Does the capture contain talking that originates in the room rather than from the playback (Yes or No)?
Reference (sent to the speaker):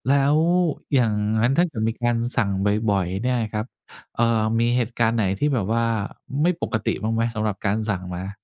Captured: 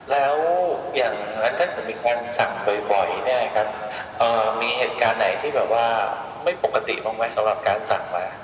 No